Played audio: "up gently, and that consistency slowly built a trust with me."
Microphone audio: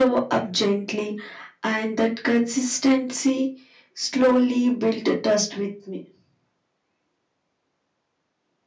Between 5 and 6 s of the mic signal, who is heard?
echo only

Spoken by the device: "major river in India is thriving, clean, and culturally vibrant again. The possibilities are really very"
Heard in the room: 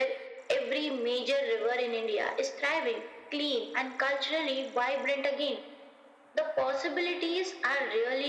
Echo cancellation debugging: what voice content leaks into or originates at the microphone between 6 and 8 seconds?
echo only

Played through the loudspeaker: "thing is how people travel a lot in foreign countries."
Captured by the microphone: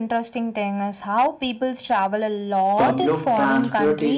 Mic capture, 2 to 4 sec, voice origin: both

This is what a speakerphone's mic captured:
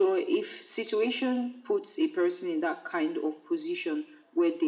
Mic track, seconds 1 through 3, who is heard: echo only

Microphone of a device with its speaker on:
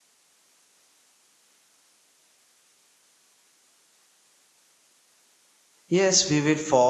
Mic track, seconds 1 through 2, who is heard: neither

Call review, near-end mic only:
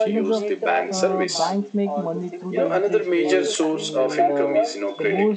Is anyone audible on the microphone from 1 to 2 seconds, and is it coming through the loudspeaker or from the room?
both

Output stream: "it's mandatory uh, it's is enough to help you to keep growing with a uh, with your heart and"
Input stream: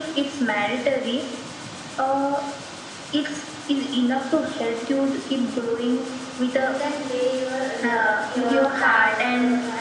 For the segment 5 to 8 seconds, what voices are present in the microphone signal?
both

